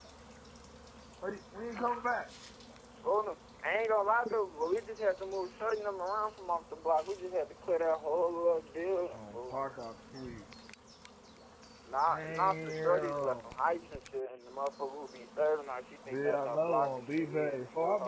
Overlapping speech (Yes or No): Yes